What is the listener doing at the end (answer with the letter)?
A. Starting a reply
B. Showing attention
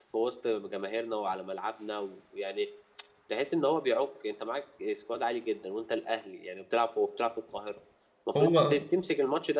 B